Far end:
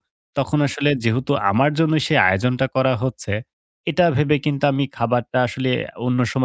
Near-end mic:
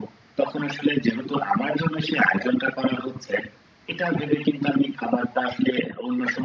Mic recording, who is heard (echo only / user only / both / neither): echo only